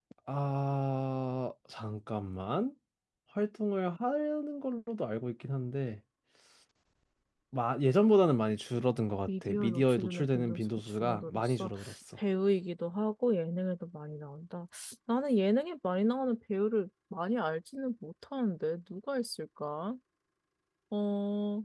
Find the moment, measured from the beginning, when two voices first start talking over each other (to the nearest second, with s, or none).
9 s